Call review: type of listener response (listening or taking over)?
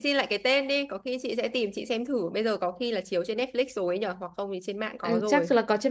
taking over